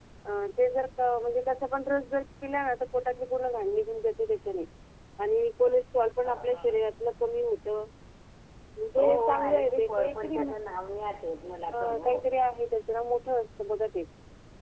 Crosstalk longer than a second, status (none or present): present